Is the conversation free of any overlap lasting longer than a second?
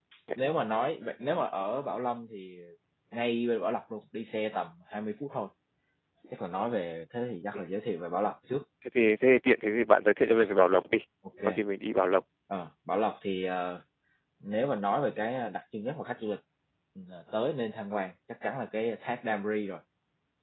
Yes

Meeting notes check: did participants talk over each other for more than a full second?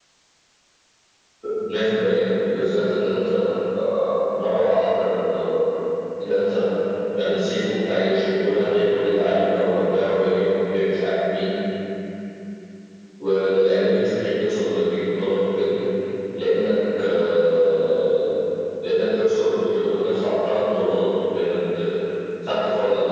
No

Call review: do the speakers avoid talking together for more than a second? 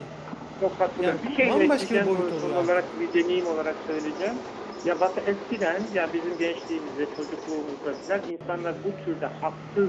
No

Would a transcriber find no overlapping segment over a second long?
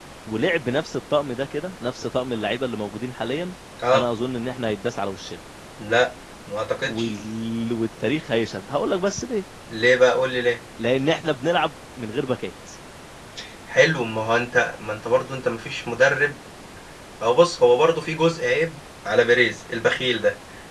Yes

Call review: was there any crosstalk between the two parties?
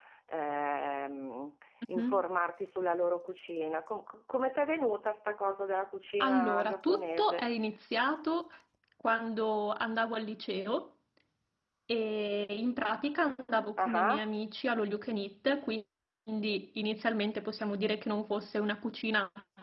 Yes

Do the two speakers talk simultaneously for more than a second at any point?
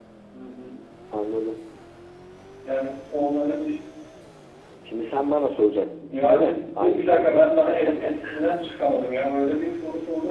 Yes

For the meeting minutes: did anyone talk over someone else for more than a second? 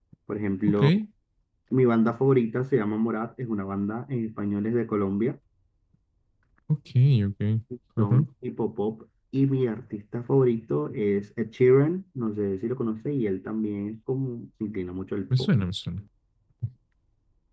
No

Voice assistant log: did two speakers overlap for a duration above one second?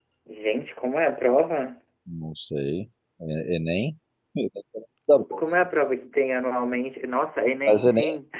No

